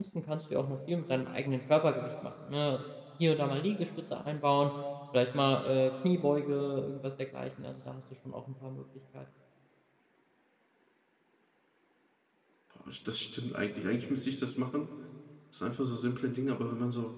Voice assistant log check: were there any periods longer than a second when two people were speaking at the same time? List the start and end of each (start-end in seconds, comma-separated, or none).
none